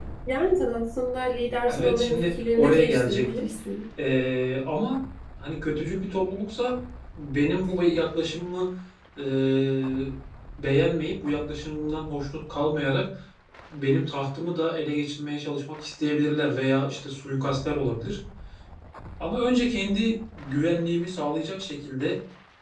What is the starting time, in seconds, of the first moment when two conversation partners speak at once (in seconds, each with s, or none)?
1.7 s